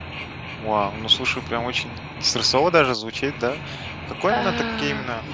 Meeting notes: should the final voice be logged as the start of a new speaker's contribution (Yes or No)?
No